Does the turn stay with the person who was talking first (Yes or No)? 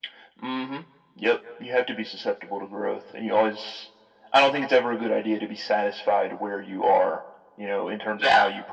Yes